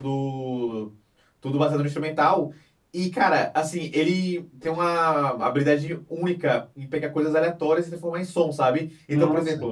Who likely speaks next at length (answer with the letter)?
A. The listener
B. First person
B